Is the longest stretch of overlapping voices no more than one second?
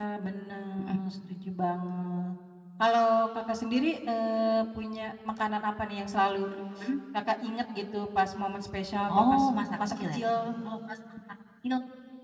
Yes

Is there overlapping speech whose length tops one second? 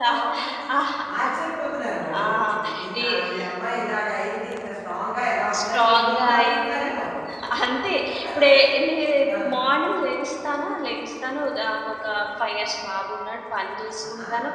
Yes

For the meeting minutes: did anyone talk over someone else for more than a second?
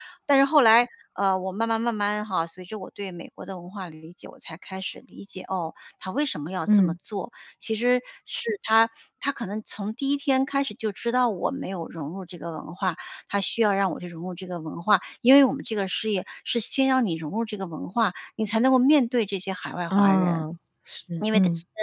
No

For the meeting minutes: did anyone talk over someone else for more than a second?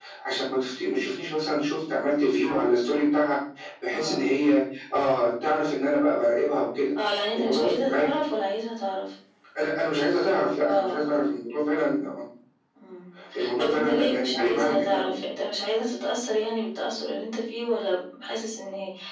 Yes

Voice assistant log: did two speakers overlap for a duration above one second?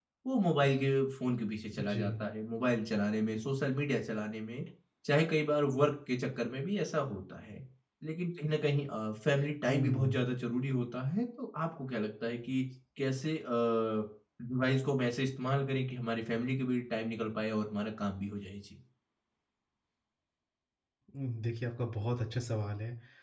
No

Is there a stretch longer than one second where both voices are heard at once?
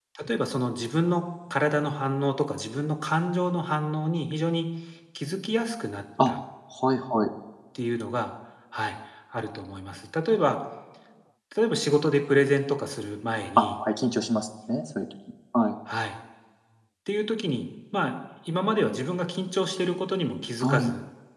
No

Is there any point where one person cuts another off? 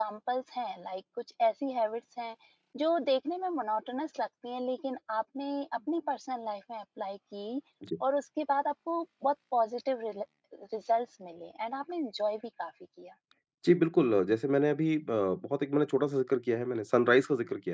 No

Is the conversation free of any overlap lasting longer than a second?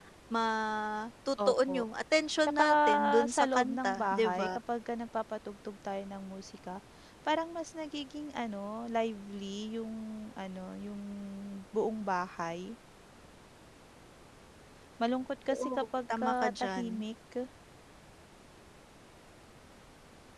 No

